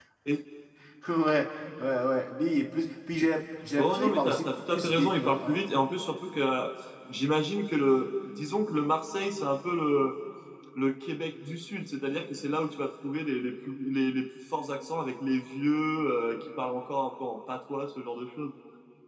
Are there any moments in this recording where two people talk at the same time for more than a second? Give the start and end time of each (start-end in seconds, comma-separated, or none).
3.8-5.6